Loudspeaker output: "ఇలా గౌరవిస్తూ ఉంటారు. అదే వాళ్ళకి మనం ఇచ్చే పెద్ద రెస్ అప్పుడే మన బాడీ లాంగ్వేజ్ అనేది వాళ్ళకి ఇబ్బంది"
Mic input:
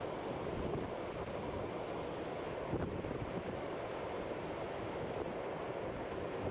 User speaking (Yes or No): No